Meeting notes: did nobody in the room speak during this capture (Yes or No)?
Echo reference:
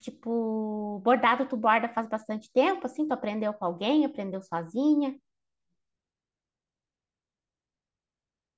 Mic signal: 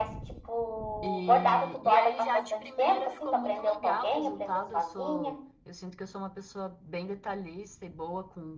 No